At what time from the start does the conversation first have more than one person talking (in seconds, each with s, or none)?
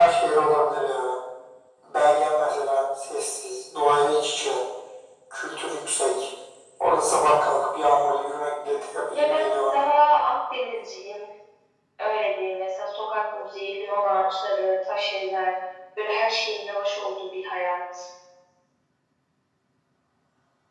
8.6 s